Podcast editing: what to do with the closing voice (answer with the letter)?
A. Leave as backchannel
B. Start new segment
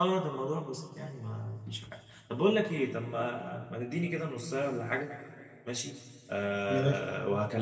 A